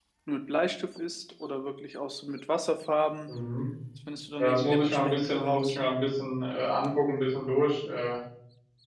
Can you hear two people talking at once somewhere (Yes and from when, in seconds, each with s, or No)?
Yes, from 4.4 s